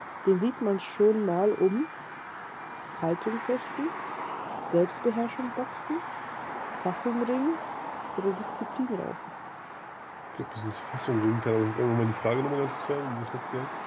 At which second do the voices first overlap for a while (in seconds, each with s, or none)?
none